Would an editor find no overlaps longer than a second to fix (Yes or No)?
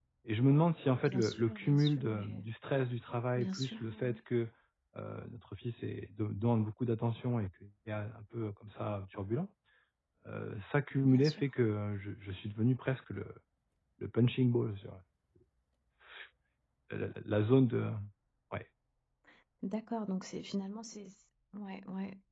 No